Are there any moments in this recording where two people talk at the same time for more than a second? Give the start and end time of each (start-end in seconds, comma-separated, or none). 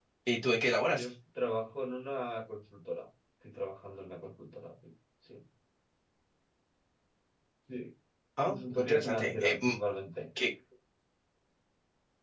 8.4-9.8